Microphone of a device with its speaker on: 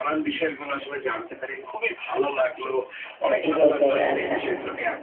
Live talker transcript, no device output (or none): এ এই পর্যায়ে আসা।